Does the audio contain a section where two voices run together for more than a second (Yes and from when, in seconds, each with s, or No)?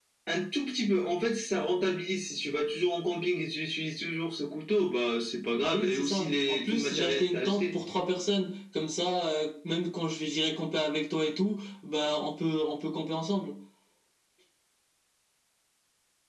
Yes, from 5.5 s